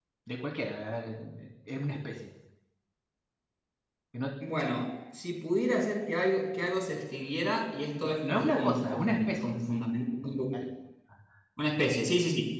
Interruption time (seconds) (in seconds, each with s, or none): 8.0 s